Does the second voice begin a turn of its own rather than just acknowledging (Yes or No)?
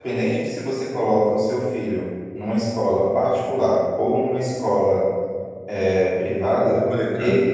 Yes